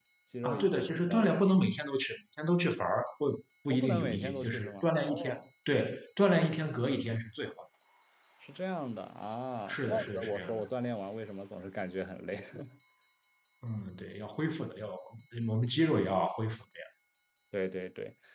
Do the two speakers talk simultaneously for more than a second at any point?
Yes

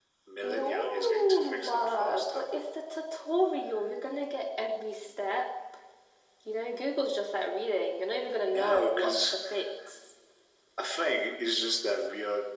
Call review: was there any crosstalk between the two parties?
Yes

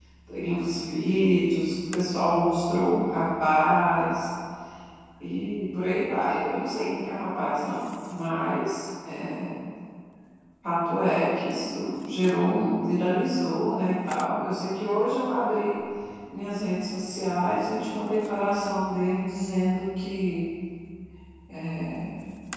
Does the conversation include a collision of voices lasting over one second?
No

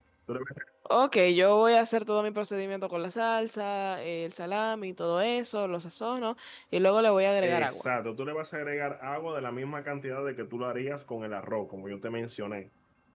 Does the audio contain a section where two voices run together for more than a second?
No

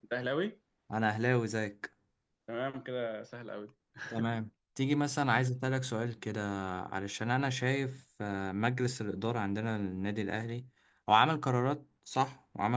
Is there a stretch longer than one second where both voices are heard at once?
No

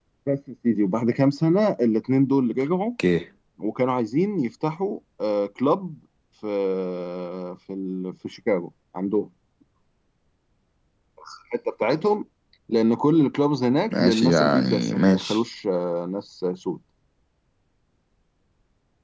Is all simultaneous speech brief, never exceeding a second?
No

